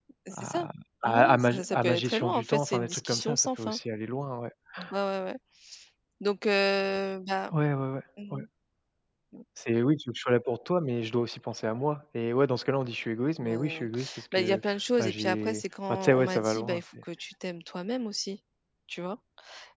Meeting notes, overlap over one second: present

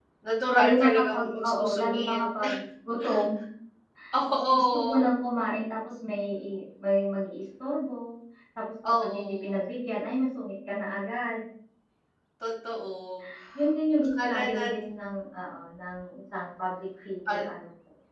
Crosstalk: present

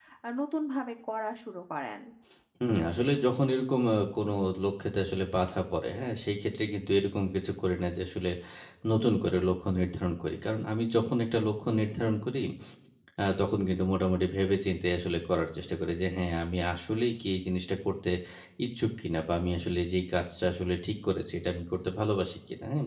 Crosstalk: none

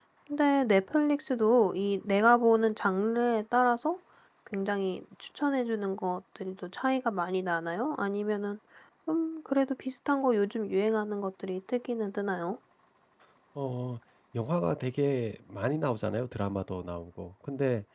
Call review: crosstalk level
none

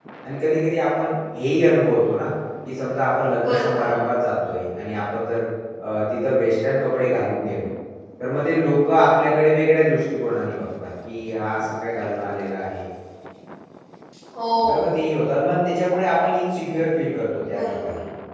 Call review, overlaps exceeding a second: none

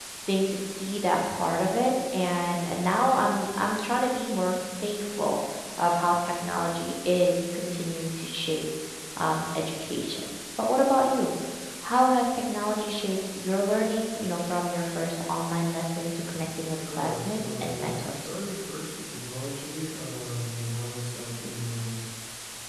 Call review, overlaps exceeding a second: present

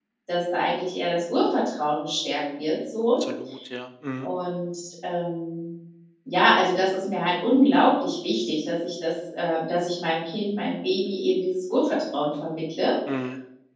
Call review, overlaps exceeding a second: none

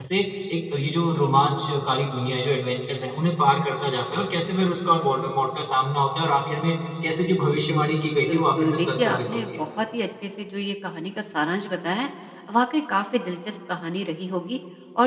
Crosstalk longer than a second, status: present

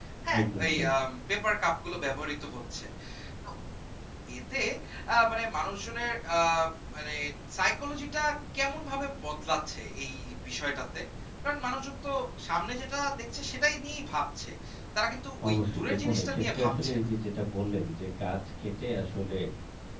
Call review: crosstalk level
present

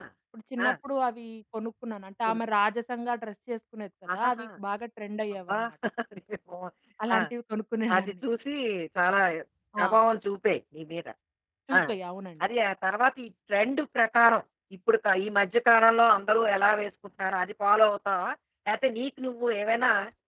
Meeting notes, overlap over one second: none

